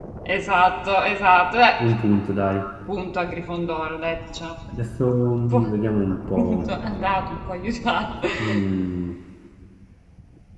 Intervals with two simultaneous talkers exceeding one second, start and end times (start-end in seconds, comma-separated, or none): none